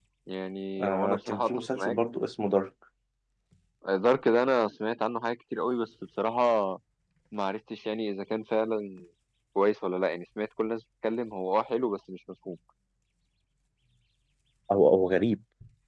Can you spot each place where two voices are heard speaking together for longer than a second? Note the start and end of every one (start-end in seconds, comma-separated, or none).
0.8-2.0